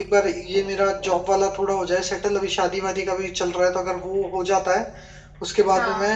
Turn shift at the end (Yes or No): No